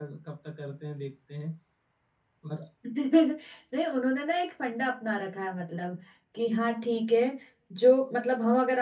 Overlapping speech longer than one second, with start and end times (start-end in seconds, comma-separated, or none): none